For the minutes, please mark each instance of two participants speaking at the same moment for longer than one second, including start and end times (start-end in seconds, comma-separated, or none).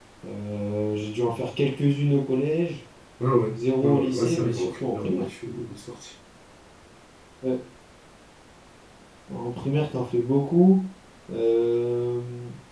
3.8-5.3